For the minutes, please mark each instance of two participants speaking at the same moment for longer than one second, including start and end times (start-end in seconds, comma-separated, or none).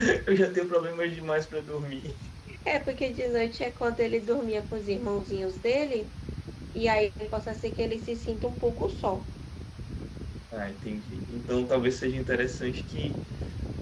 none